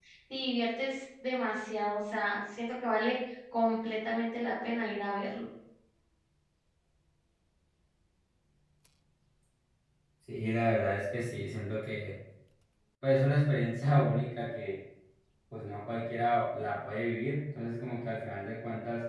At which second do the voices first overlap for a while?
none

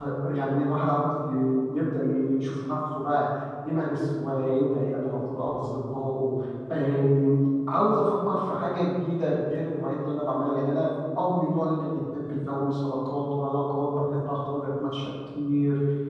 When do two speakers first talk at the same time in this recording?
none

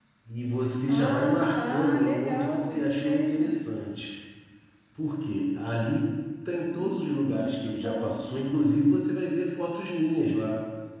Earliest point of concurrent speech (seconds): 0.9 s

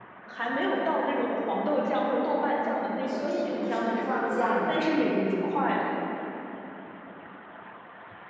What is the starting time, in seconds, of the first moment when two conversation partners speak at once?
3.1 s

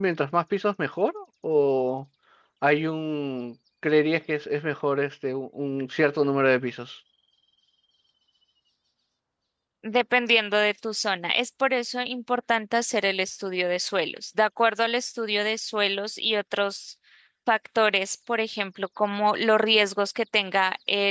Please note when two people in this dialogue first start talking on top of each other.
none

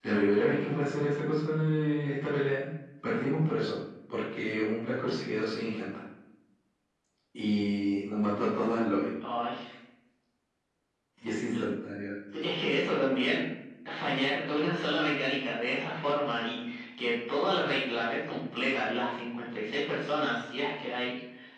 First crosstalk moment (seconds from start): none

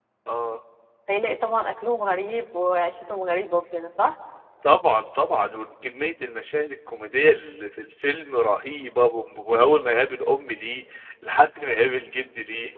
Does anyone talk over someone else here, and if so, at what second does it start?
none

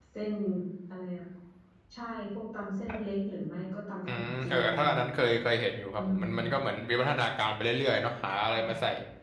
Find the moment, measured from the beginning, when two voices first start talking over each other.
4.0 s

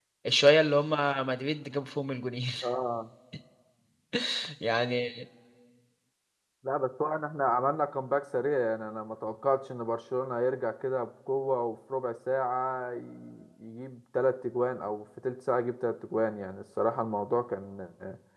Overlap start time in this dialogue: none

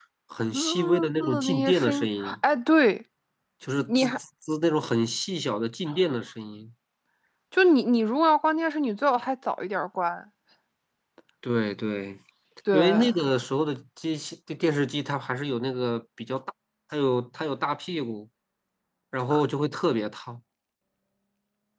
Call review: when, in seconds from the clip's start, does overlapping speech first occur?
0.5 s

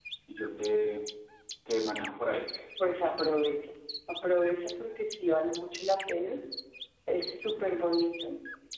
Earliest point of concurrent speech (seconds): none

